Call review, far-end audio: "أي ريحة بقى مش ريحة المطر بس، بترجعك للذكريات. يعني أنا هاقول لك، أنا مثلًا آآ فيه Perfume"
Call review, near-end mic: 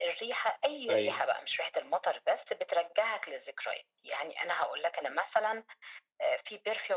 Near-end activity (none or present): present